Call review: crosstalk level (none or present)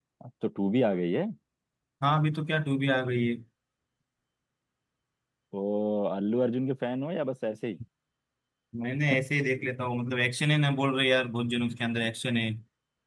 none